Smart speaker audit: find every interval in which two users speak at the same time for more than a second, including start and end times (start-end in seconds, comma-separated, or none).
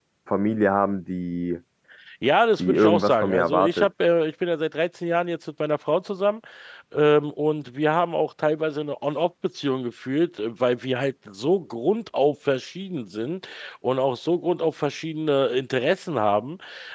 2.6-3.9